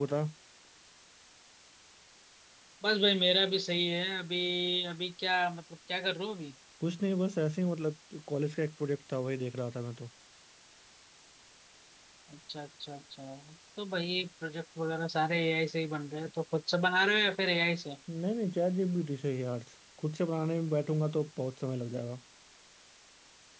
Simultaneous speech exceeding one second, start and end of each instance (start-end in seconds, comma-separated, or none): none